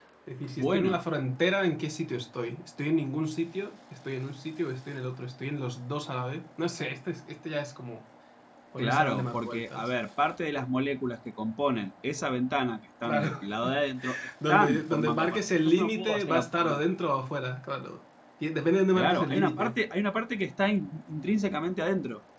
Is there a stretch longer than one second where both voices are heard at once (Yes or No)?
Yes